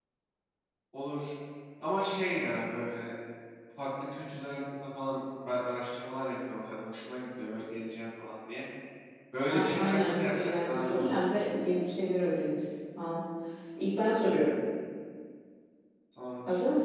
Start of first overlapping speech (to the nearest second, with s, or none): 10 s